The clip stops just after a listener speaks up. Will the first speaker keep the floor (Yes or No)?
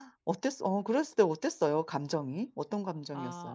No